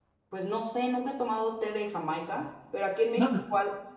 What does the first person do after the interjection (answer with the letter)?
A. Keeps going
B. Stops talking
A